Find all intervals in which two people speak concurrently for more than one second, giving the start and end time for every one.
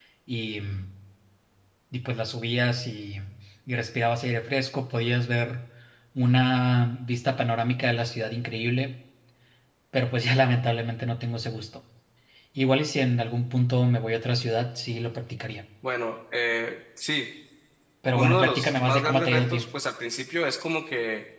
18.1-19.6

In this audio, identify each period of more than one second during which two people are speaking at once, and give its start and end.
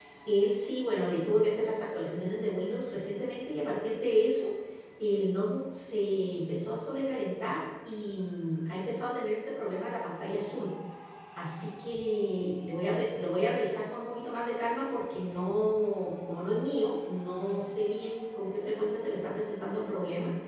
none

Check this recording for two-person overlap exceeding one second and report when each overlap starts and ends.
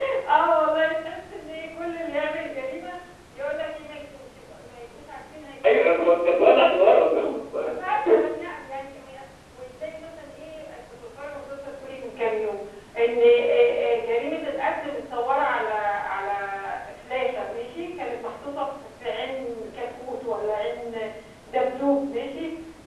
none

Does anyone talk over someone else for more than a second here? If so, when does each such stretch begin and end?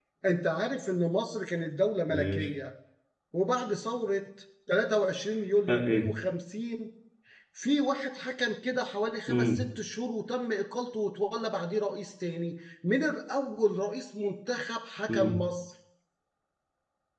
none

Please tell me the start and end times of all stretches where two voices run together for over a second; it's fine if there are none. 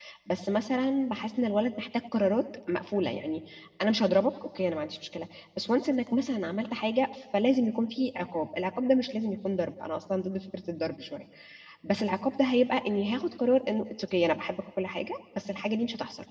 none

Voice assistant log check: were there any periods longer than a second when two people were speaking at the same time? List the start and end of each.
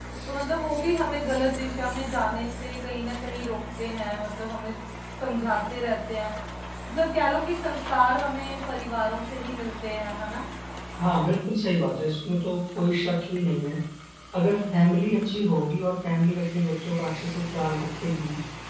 none

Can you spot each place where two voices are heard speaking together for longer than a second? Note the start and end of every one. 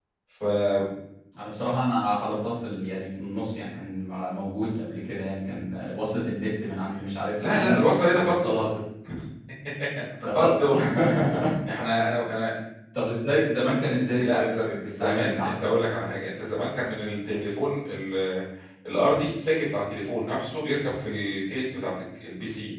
14.2-15.6

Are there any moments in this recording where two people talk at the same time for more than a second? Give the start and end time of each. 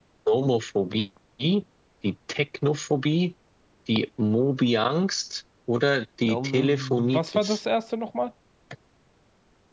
6.2-7.6

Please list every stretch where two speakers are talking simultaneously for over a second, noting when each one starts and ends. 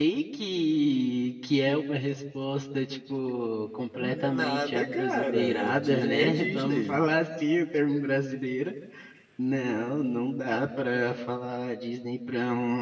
4.0-7.0

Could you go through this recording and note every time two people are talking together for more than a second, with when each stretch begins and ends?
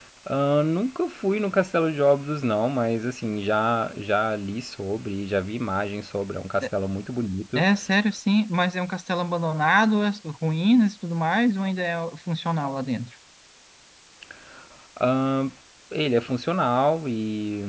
none

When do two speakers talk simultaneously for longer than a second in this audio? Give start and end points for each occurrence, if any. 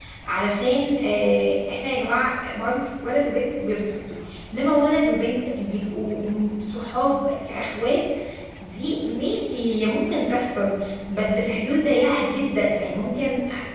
none

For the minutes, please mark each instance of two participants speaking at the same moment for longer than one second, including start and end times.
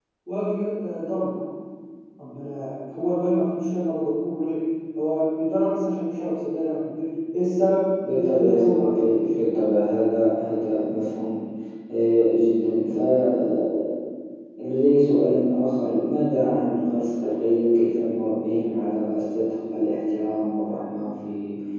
8.1-9.3

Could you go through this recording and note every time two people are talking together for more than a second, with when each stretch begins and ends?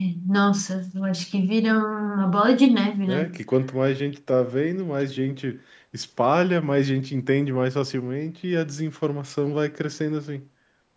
none

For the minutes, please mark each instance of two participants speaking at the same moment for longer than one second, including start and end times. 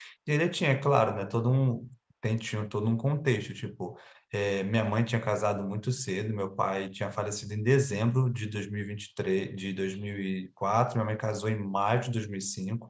none

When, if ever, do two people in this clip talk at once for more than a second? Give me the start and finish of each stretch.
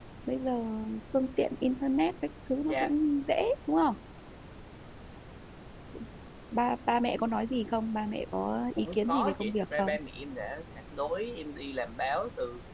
8.8-9.9

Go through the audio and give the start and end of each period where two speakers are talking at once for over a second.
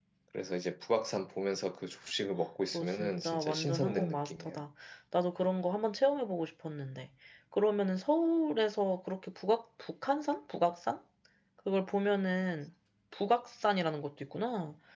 2.7-4.6

